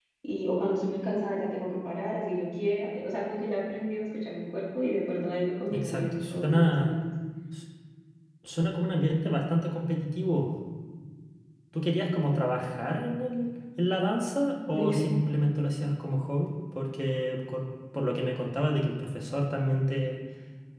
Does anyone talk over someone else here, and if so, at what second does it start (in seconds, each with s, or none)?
5.7 s